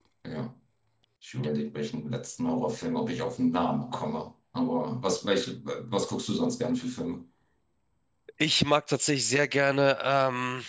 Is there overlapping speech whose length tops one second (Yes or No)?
No